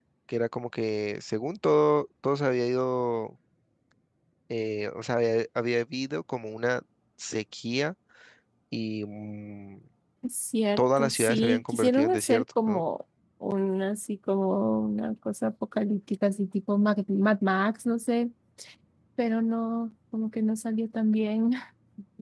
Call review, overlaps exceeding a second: present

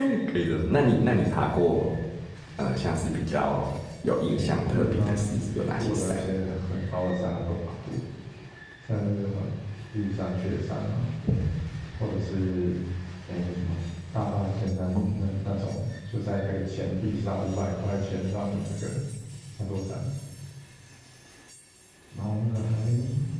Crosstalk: present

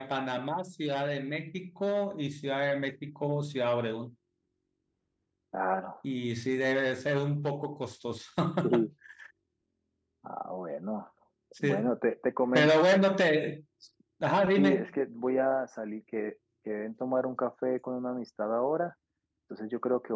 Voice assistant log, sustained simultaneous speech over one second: none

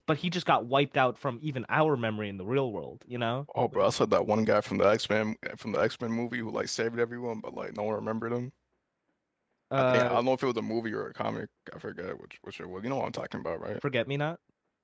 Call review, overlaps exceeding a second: none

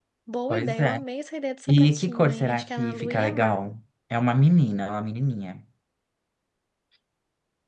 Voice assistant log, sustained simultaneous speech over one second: present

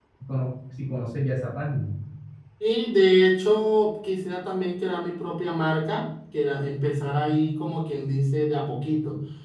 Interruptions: none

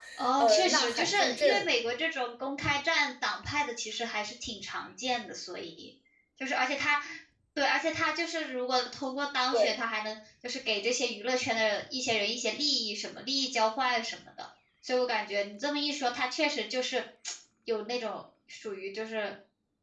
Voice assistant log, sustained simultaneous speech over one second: present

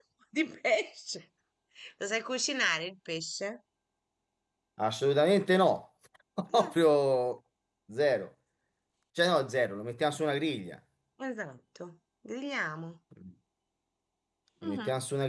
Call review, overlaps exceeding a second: none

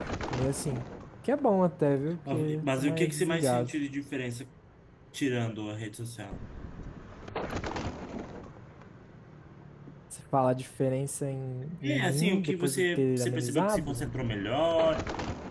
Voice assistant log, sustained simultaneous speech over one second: present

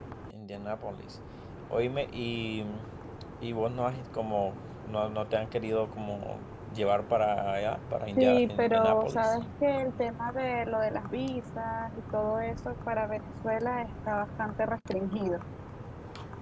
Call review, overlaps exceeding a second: present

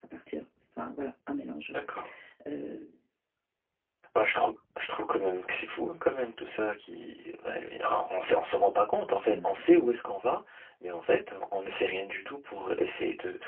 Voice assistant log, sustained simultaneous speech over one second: none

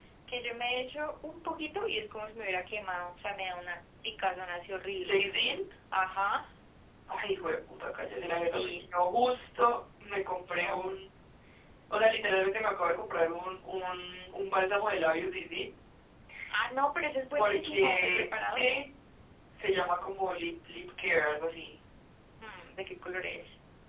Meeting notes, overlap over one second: present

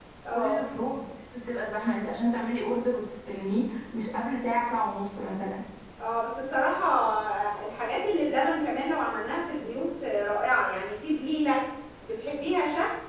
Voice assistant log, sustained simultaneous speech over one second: none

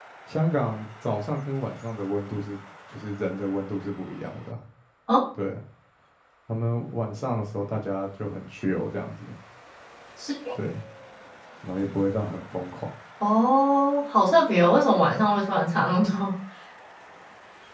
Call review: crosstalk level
none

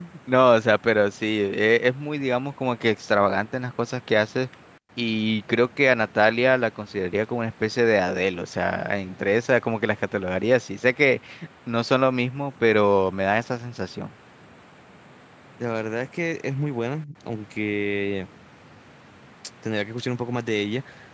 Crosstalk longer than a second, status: none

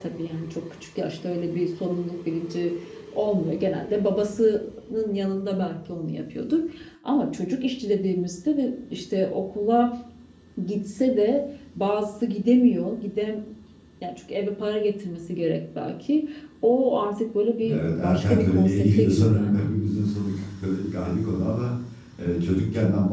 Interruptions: present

